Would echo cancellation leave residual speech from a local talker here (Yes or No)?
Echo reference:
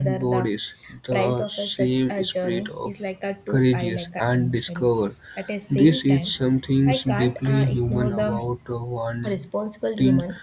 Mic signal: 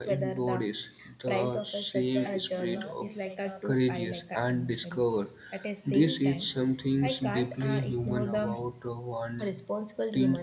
Yes